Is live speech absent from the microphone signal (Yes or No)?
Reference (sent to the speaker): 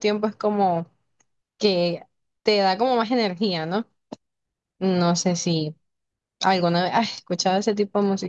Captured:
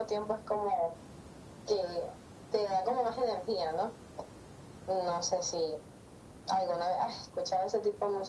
Yes